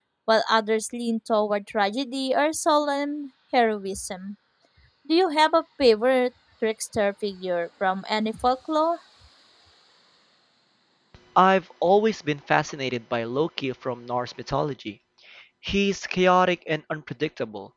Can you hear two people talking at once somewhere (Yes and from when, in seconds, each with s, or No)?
No